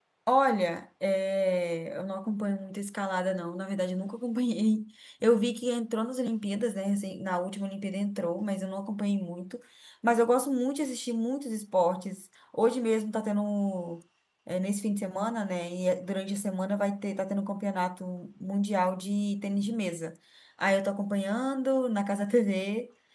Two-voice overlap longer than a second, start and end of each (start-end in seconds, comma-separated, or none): none